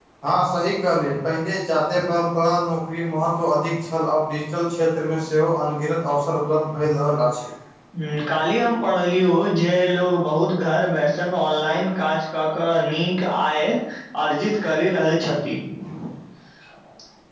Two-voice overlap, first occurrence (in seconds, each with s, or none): none